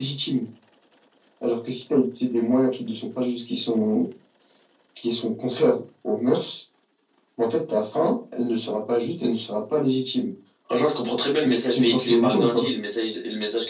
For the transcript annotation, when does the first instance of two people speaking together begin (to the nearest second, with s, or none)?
11 s